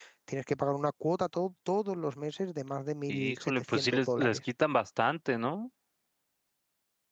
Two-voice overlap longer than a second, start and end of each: 3.1-4.4

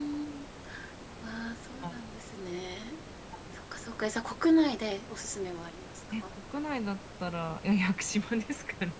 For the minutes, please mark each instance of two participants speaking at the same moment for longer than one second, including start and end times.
none

